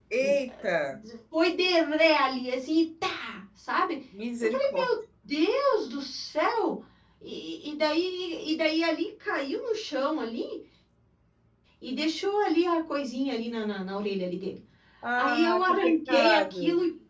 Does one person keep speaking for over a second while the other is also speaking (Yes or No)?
Yes